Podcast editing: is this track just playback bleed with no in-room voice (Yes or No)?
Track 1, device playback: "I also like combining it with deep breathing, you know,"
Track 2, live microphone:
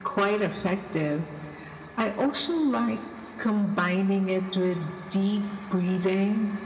Yes